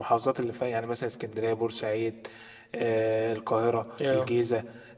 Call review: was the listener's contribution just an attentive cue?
Yes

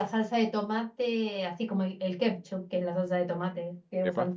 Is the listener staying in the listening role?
Yes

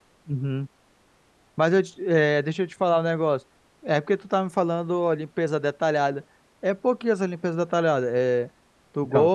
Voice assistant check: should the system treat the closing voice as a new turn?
No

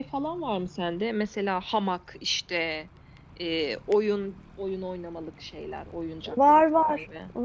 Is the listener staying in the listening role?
No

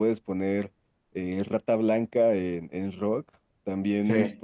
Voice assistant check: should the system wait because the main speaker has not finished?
Yes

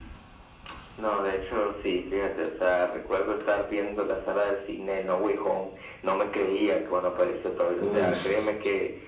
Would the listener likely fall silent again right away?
Yes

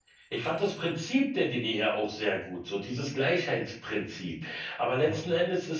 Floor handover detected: No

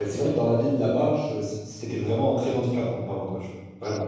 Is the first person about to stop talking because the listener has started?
Yes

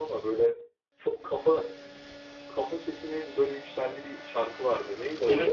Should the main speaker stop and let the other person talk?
Yes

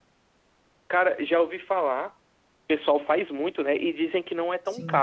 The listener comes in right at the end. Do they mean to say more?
Yes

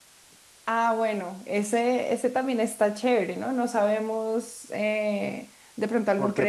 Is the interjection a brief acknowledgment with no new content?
No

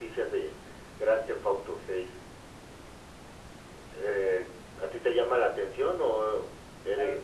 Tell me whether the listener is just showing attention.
No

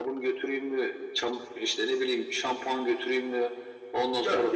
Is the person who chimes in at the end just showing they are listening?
Yes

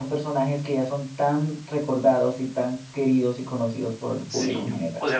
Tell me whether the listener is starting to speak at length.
Yes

